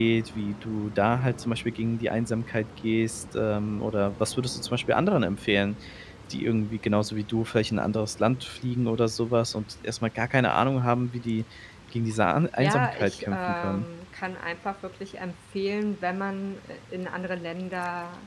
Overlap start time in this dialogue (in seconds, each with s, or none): 12.6 s